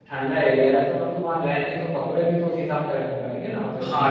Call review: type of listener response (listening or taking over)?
taking over